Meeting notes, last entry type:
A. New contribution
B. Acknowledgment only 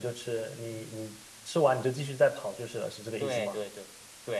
A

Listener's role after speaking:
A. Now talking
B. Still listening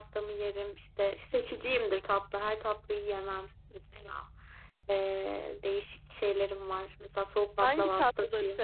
A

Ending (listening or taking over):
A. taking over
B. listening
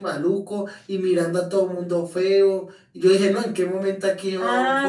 A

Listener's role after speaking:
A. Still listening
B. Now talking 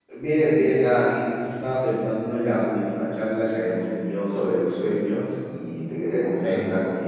A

